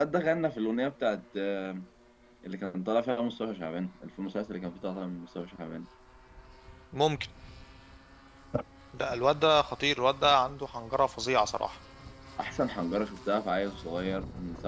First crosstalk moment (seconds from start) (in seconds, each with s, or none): none